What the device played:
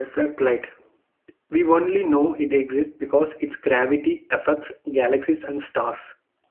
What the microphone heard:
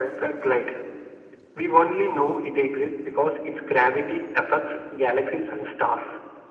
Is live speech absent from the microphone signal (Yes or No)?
Yes